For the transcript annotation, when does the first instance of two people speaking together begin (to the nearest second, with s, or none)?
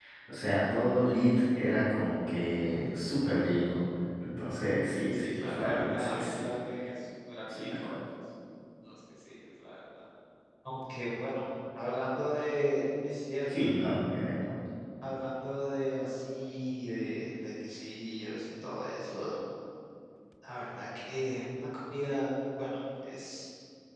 5 s